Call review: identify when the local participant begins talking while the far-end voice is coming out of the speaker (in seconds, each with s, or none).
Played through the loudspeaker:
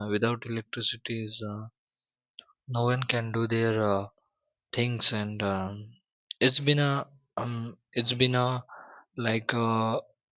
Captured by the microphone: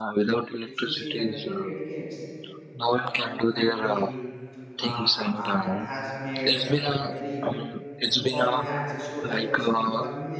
0.6 s